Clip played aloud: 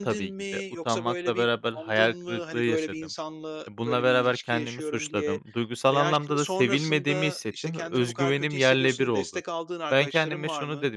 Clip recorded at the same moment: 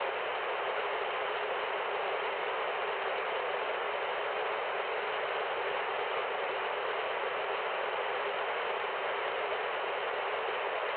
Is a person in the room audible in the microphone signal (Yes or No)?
No